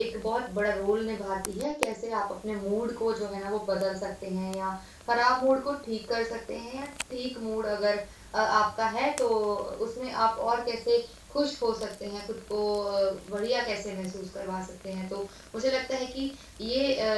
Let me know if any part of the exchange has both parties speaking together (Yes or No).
No